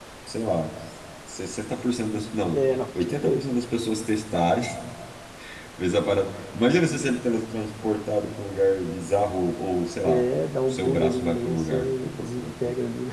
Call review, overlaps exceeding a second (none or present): present